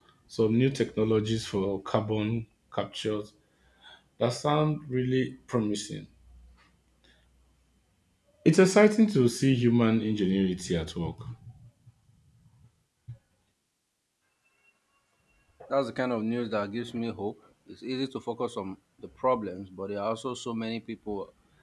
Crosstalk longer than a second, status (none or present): none